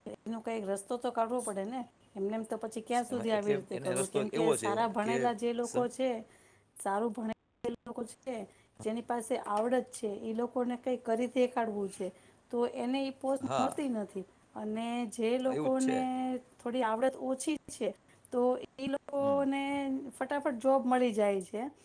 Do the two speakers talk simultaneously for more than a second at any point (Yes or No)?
Yes